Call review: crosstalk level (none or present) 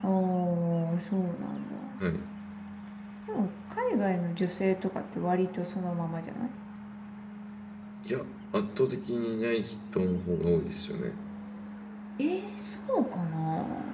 none